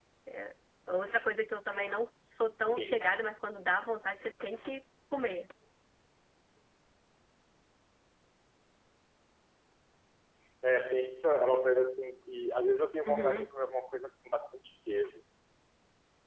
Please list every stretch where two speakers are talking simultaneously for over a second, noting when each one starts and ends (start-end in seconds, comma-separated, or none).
none